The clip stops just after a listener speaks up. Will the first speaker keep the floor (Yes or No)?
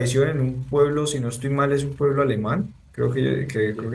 Yes